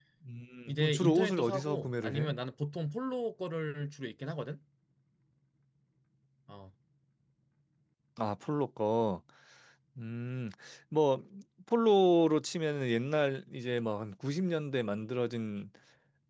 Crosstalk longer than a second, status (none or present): present